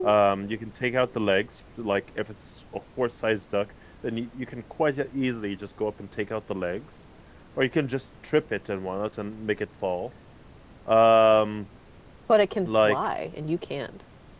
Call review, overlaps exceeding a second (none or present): none